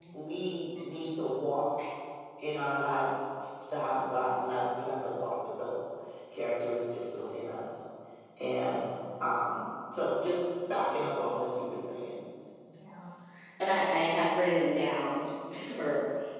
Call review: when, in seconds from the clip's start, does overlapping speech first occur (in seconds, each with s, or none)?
none